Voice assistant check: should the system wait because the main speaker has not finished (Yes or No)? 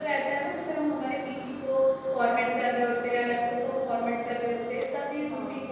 Yes